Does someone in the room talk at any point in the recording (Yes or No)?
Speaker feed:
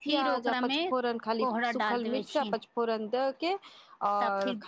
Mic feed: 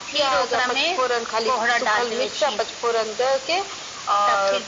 No